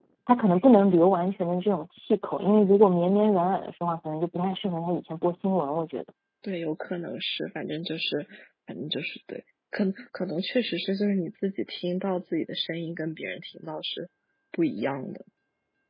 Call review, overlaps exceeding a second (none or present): none